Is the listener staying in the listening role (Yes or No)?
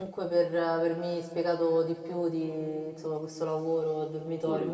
Yes